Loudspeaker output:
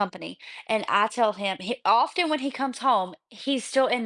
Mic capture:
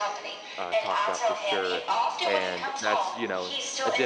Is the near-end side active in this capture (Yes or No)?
Yes